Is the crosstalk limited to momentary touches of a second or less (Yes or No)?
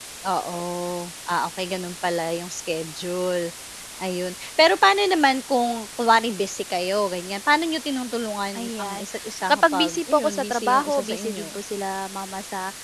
No